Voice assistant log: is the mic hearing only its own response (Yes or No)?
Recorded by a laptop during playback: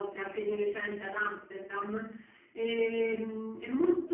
Yes